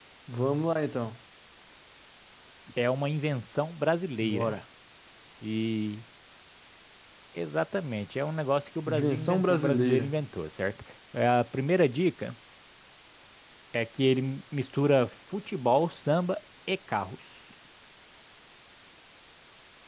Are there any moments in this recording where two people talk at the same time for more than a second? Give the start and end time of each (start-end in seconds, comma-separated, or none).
8.9-10.2